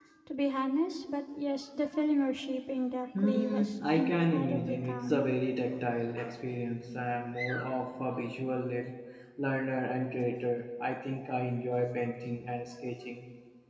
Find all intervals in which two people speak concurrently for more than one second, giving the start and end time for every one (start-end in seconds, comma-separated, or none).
3.2-5.3